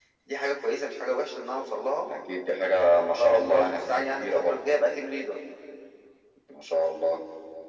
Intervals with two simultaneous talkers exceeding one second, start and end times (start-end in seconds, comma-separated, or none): 3.2-4.7